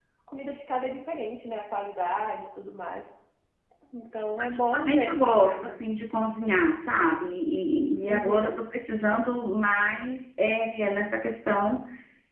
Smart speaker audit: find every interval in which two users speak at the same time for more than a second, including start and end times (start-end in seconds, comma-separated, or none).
4.4-5.8